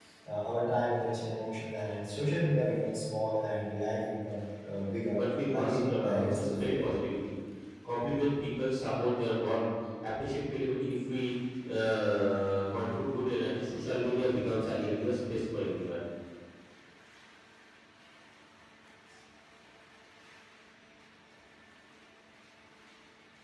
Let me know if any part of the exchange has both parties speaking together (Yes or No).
Yes